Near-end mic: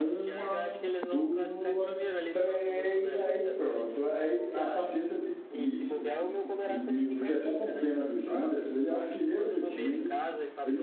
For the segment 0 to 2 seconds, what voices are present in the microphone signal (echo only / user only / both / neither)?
both